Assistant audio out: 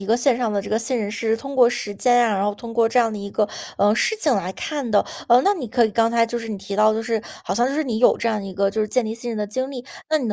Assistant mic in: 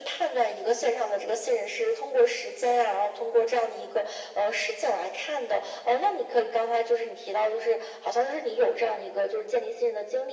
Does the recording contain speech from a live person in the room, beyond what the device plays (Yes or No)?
No